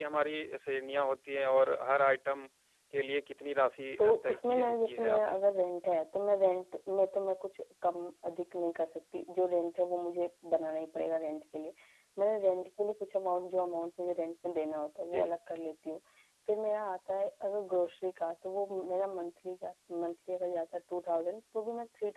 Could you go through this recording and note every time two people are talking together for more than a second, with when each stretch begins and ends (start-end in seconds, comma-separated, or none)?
4.0-5.4